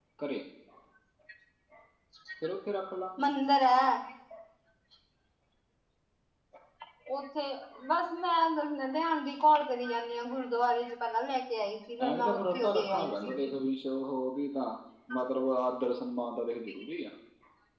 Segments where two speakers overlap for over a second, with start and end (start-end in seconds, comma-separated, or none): 12.0-13.5